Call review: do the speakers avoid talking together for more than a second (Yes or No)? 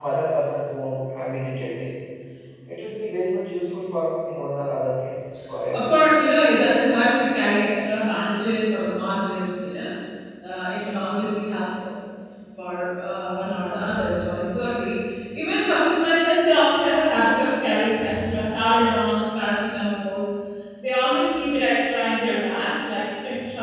Yes